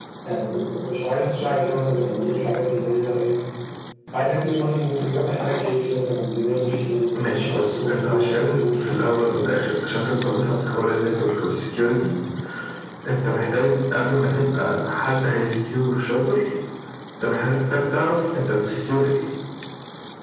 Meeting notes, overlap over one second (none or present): present